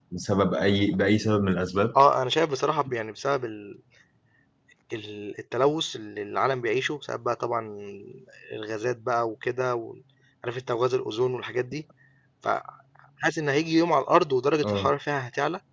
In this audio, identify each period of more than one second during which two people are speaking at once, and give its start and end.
none

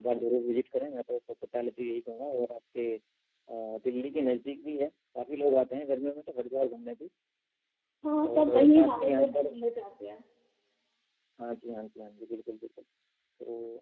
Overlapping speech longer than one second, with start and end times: 8.3-9.5

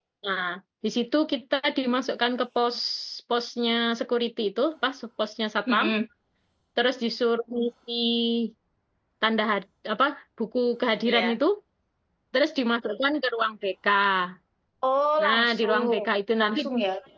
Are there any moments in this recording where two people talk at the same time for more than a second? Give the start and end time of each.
15.2-16.6

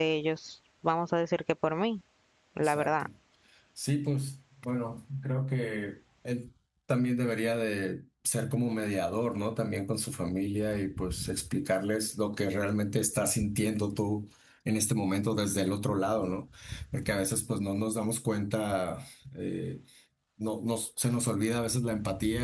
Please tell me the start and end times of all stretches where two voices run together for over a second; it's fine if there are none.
none

